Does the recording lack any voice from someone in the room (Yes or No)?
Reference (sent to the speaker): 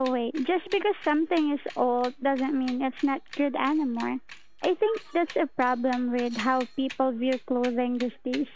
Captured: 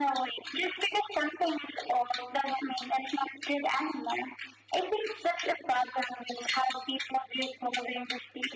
Yes